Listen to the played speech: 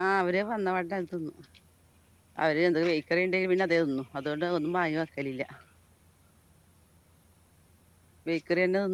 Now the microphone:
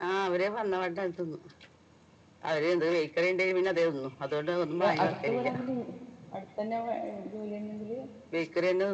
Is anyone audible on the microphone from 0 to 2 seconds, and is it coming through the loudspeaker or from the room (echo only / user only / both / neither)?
echo only